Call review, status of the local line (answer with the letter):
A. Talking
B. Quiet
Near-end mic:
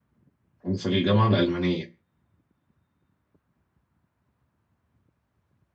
A